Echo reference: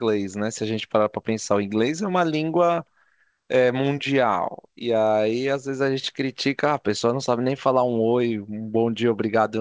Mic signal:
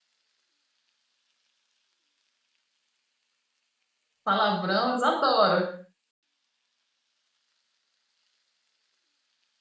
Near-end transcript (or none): Palavrão, eles adoram.